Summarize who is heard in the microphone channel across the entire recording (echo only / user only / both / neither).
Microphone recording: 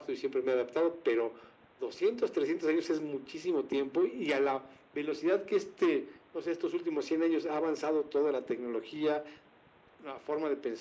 echo only